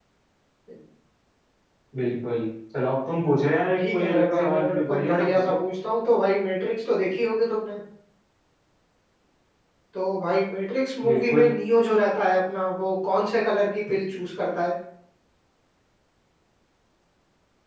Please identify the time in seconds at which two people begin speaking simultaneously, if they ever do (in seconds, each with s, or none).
3.8 s